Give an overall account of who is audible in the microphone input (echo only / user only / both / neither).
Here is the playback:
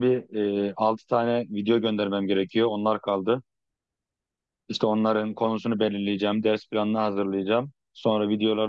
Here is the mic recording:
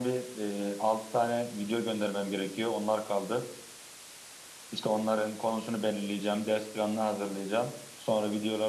echo only